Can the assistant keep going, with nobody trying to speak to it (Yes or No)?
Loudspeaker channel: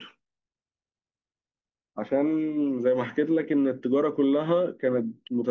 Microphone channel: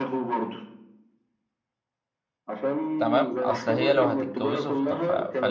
No